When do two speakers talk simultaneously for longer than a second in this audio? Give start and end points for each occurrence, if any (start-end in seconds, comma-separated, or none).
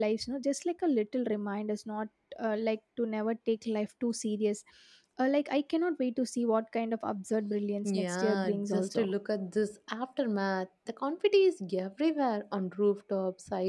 7.8-9.1